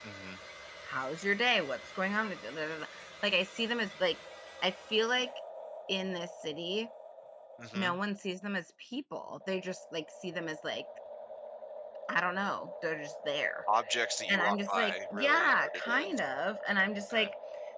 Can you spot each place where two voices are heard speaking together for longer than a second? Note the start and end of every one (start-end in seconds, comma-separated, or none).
14.3-16.1